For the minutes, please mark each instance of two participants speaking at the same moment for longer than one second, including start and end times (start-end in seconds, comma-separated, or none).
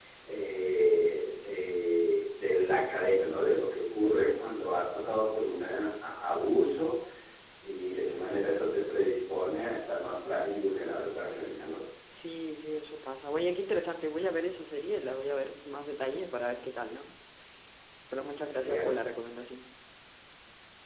none